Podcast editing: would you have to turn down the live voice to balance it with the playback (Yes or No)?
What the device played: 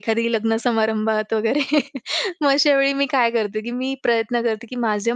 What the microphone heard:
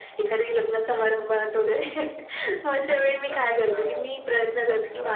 No